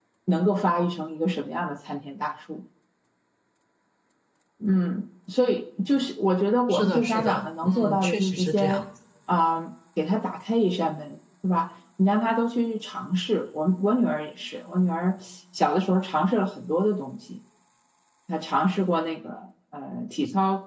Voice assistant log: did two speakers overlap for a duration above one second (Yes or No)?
Yes